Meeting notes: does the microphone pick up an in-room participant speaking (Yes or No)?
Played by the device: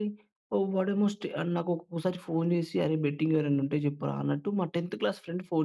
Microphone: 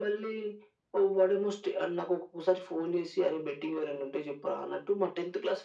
No